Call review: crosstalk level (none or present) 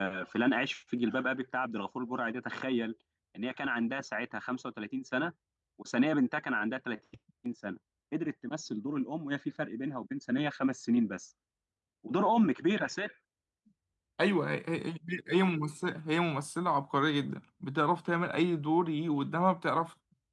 none